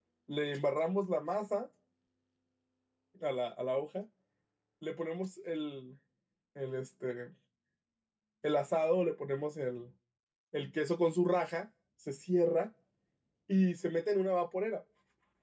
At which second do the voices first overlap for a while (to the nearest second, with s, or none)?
none